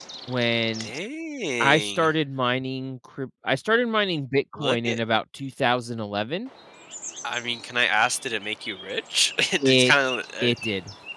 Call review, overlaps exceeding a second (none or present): none